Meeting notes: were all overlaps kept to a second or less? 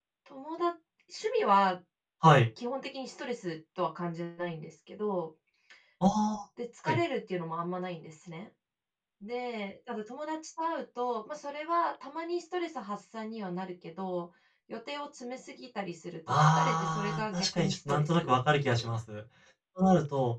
No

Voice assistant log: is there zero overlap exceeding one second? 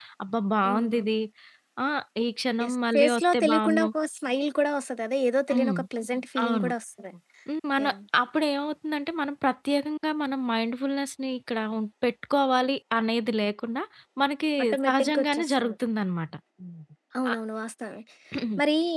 No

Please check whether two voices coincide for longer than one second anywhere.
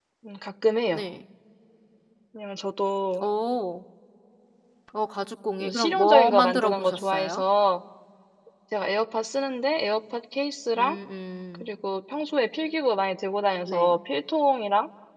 Yes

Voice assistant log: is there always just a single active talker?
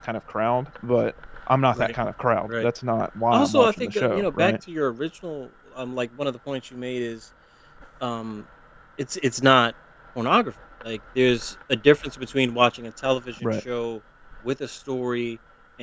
No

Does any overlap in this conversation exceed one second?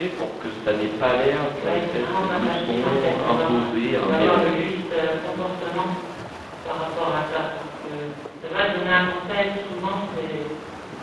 Yes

